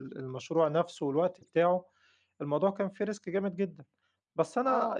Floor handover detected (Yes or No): Yes